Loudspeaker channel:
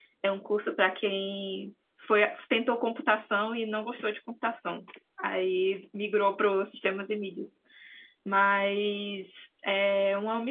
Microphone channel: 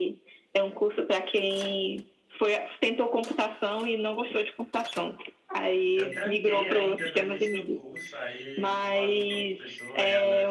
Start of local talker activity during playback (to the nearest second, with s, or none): 6 s